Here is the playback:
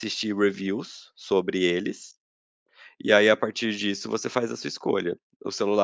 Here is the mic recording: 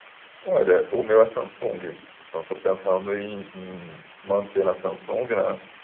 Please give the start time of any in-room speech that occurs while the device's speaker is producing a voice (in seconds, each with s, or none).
0.4 s